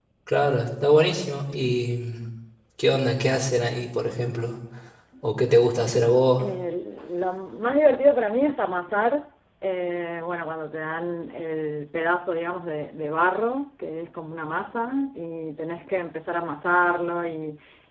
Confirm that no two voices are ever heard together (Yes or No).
Yes